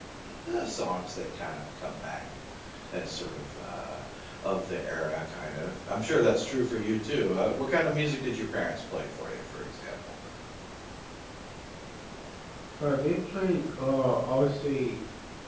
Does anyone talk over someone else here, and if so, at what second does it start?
none

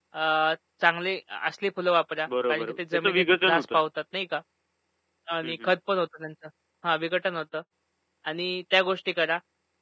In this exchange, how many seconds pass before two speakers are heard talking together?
2.5 s

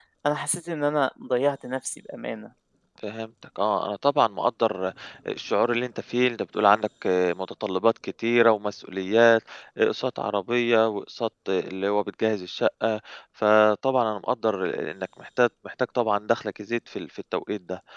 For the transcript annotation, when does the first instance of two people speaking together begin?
none

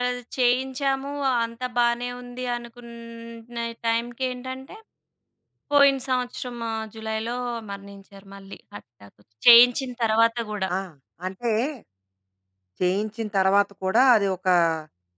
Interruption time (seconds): none

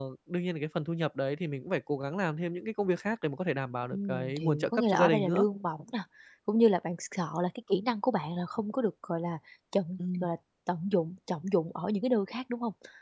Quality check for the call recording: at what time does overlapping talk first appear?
3.9 s

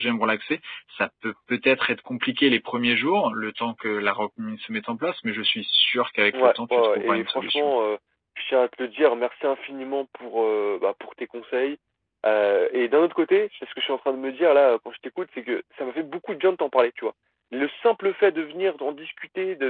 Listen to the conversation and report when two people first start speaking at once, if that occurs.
6.3 s

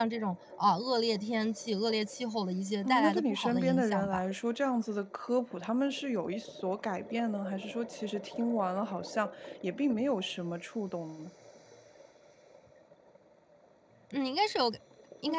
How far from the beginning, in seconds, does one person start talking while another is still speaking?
2.9 s

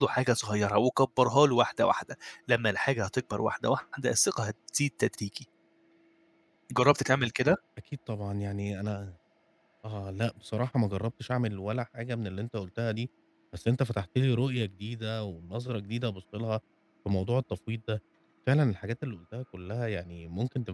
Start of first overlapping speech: none

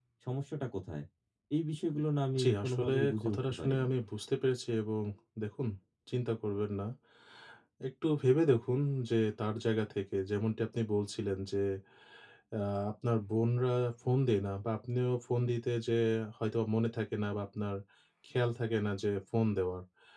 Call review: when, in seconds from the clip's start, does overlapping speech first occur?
2.4 s

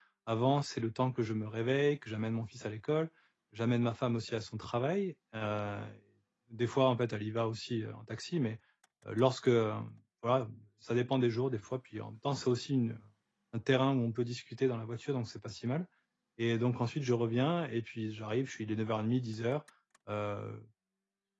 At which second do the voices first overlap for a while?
none

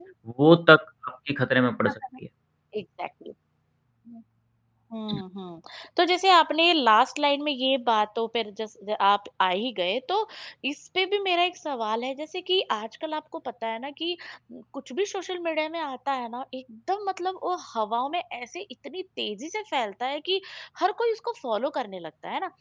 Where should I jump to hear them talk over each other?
none

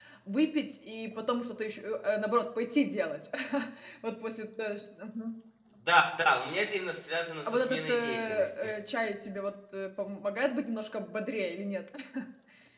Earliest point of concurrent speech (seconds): 7.5 s

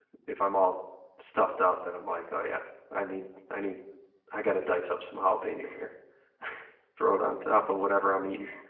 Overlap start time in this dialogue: none

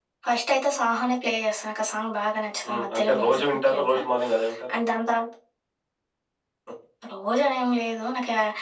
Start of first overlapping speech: 2.7 s

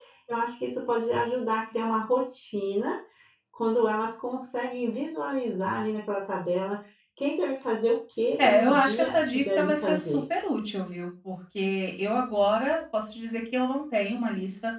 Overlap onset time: 8.4 s

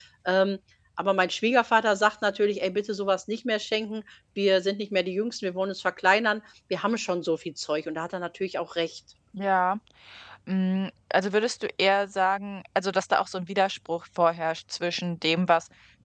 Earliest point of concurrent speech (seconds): none

